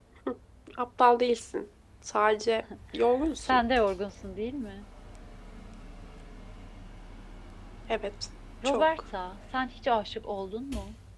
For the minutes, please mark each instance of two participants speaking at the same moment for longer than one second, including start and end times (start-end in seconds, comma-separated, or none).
none